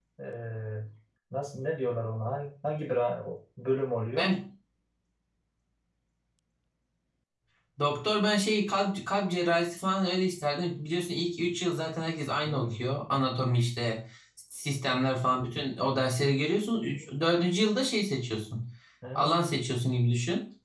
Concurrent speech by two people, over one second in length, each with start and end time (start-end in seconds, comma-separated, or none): none